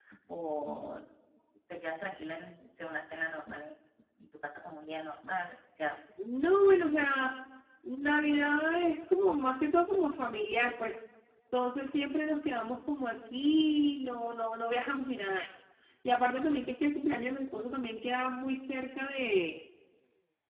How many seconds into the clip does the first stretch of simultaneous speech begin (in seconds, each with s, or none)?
none